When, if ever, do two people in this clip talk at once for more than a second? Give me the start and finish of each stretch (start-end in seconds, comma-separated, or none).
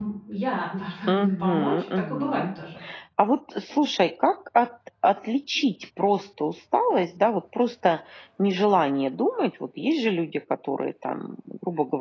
1.1-2.5